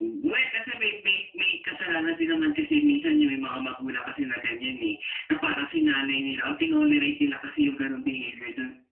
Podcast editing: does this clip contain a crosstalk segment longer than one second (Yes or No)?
No